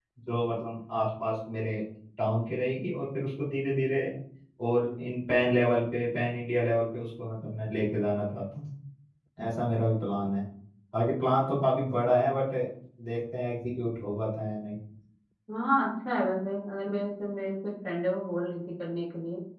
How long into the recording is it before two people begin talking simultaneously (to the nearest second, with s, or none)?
none